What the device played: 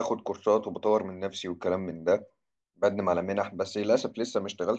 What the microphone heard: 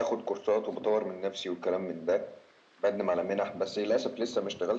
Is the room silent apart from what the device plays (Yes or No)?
Yes